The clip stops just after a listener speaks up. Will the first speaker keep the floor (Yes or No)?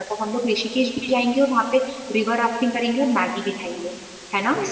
No